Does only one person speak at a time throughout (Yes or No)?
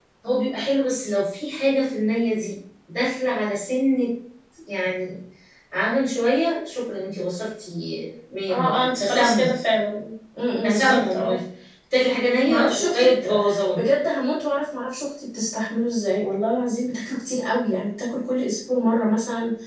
No